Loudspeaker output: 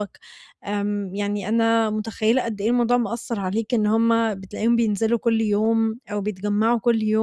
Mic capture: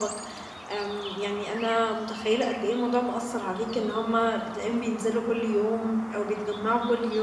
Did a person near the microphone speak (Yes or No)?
No